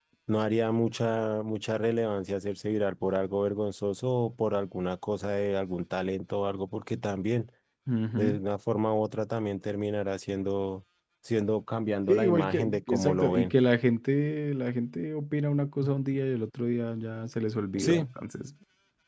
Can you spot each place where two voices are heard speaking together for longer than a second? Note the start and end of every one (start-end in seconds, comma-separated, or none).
12.1-13.5